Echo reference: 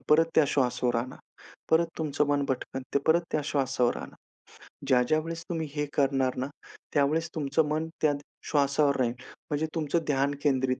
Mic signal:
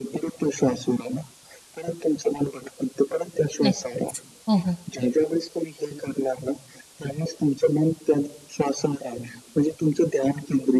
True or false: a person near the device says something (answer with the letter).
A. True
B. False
A